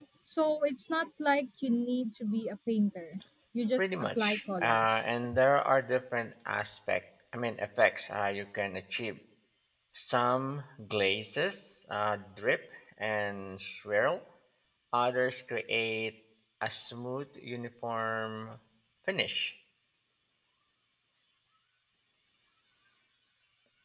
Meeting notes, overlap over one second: present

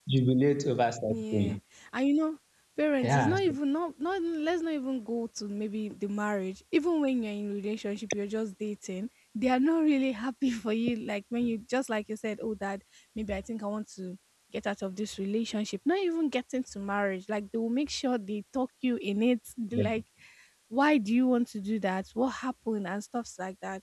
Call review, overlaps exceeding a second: none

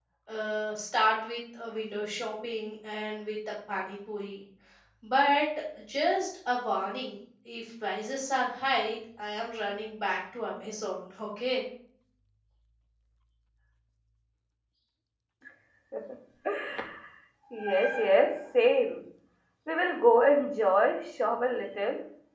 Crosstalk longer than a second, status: none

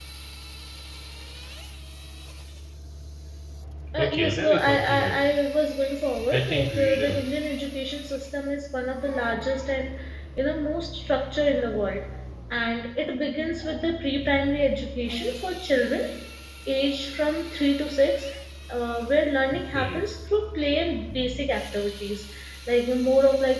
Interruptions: present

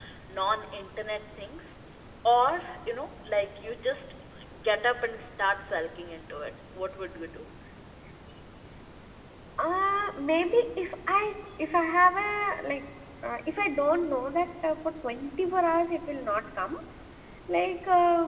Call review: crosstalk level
none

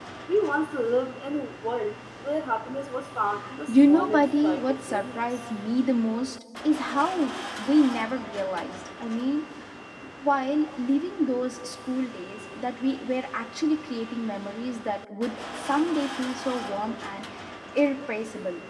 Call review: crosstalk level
present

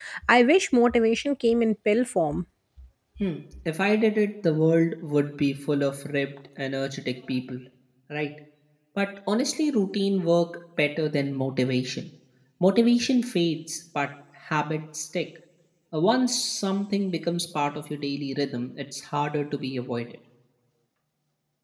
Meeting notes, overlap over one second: none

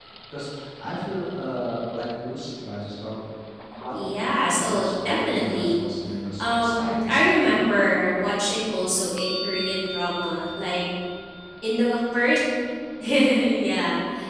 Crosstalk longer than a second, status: present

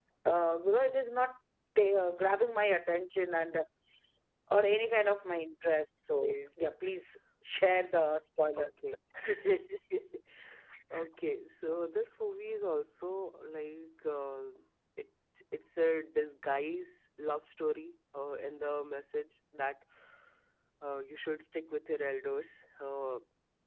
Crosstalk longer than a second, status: none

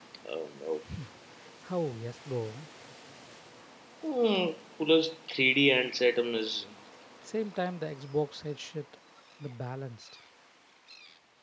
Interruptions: none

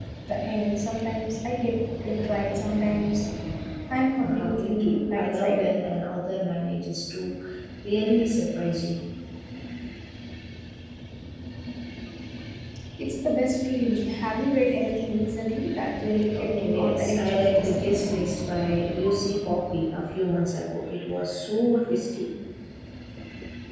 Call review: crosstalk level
present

